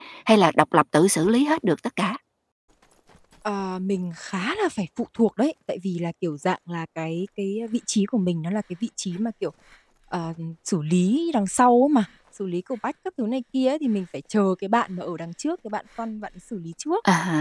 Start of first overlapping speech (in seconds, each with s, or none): none